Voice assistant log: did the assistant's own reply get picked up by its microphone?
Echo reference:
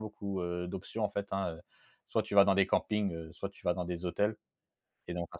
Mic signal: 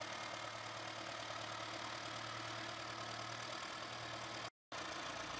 No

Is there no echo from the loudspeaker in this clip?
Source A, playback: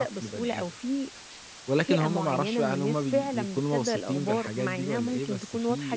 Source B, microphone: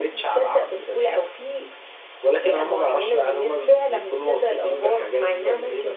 No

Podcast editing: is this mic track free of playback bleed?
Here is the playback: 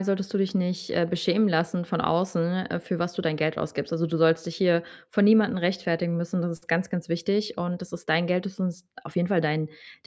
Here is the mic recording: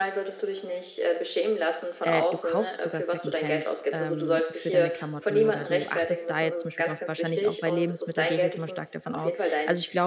No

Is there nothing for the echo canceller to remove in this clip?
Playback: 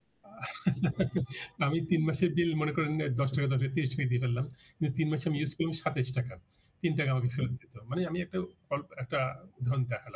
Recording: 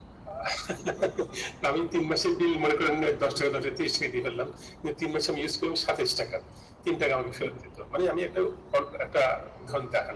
No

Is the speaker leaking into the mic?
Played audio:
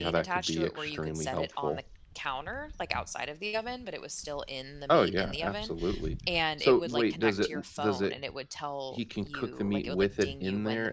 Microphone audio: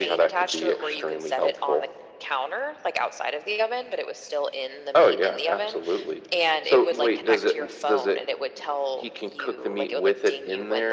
Yes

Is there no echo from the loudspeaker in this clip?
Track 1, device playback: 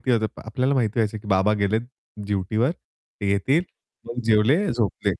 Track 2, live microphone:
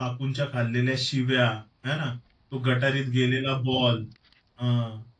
Yes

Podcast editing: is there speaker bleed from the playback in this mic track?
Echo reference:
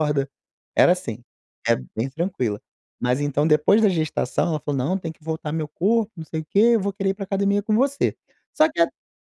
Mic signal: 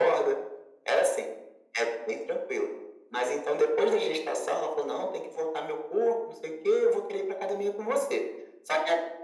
Yes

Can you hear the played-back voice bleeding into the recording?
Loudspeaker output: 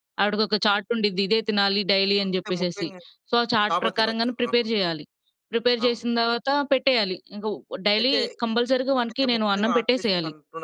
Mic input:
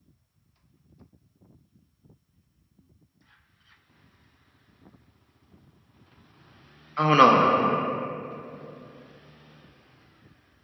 No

